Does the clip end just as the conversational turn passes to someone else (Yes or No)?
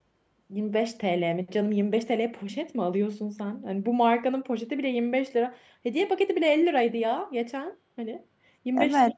Yes